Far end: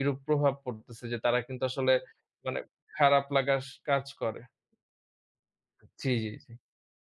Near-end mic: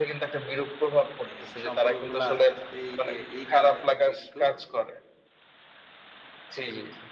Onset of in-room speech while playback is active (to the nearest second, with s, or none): 1 s